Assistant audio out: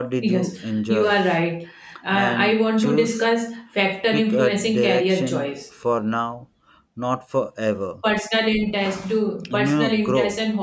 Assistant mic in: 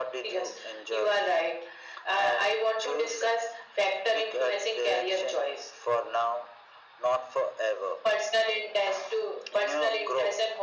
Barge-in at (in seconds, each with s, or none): none